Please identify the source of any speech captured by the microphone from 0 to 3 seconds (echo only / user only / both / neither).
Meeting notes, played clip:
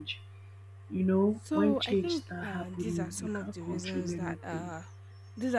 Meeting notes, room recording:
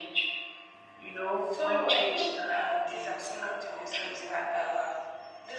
echo only